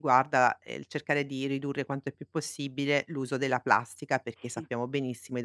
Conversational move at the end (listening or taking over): listening